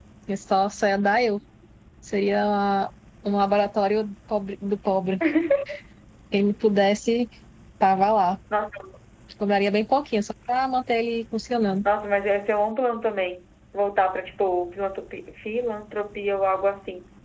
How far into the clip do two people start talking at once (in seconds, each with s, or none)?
none